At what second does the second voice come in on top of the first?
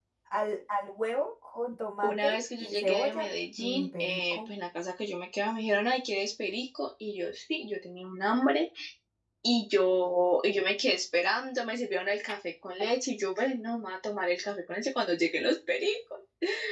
2.0 s

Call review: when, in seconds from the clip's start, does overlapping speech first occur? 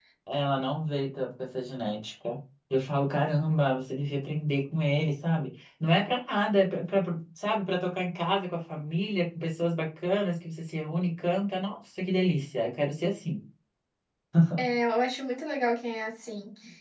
none

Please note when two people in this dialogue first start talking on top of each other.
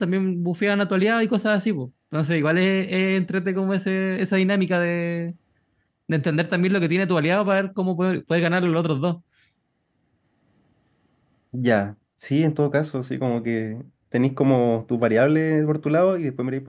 none

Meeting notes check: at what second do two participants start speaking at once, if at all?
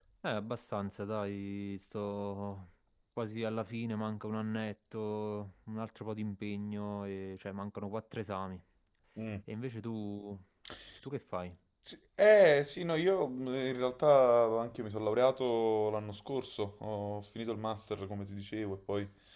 none

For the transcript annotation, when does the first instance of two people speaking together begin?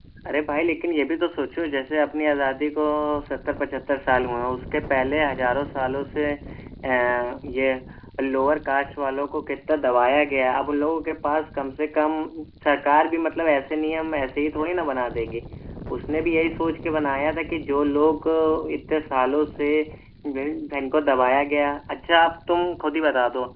none

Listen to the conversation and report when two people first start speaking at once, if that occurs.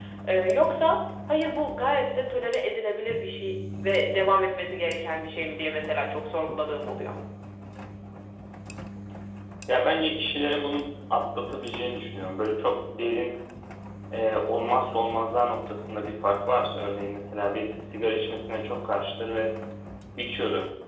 none

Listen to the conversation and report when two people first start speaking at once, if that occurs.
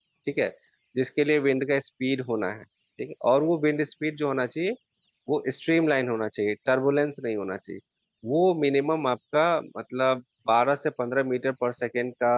none

